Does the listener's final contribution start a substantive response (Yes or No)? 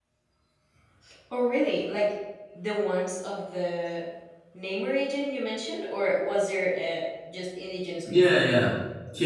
Yes